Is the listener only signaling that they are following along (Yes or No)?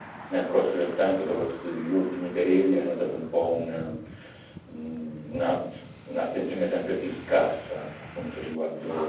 No